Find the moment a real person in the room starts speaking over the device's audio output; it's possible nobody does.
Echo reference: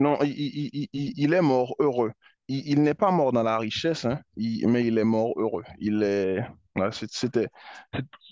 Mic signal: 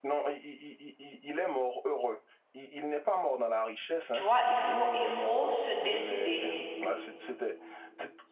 4.1 s

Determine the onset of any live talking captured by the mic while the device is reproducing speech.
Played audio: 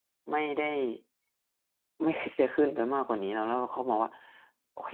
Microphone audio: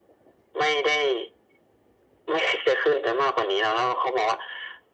none

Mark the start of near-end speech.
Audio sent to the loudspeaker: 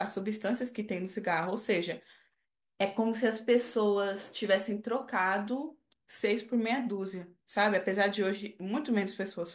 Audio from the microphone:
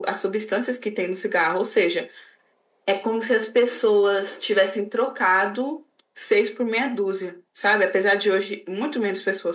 none

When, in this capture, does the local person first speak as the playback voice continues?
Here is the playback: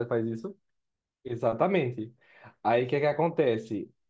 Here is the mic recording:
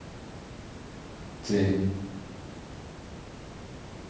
1.4 s

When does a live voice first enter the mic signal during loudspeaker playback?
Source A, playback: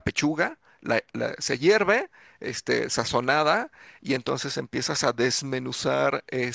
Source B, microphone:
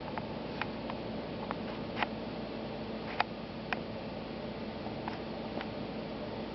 none

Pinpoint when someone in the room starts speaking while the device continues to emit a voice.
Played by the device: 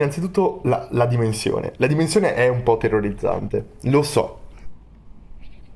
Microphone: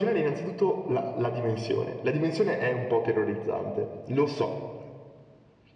none

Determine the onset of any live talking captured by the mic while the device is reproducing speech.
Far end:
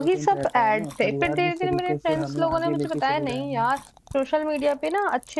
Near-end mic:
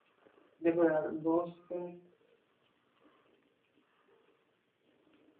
0.6 s

